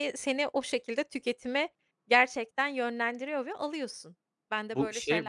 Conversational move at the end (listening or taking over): taking over